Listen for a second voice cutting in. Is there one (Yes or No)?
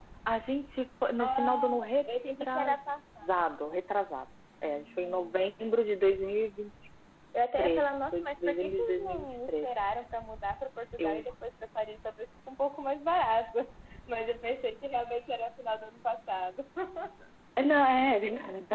Yes